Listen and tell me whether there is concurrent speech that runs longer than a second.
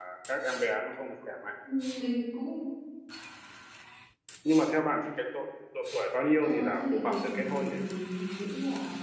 Yes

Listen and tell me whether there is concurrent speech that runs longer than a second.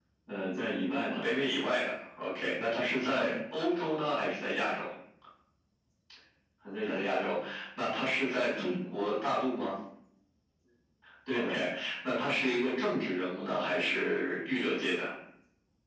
No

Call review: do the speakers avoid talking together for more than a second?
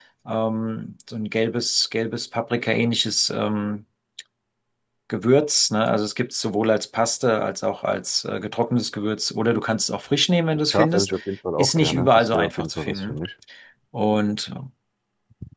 No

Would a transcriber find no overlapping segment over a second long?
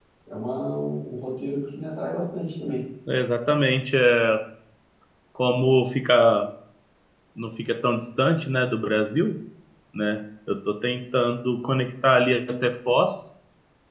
Yes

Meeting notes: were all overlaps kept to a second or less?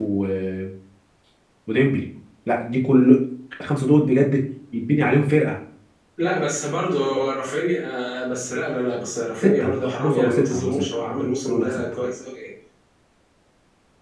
No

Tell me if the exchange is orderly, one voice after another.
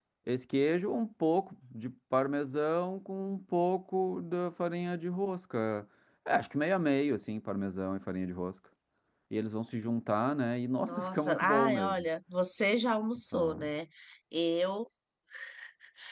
No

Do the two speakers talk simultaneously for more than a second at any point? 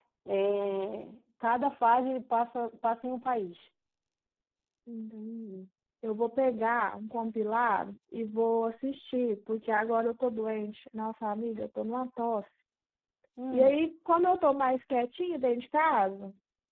No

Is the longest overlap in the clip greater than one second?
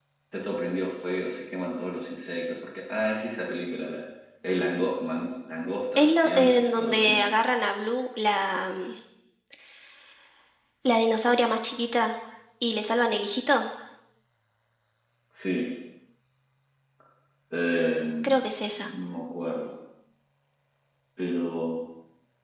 Yes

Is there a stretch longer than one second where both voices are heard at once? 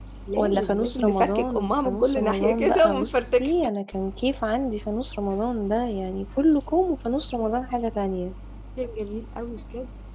Yes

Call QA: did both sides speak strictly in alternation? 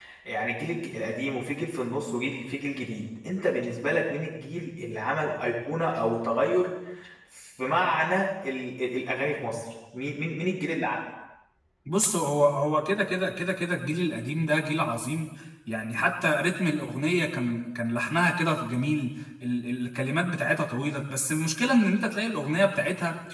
Yes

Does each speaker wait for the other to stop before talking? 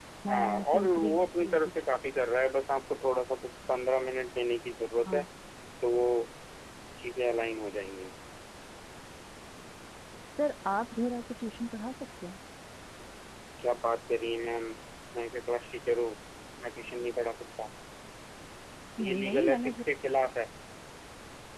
No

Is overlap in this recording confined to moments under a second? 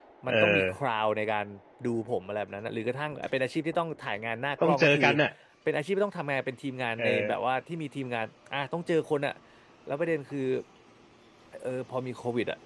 Yes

